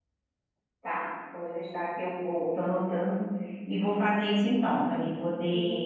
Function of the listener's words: taking over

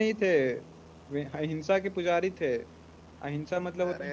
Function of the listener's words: listening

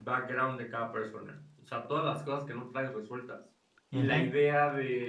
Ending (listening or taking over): listening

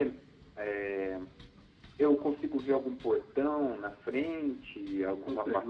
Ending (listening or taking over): taking over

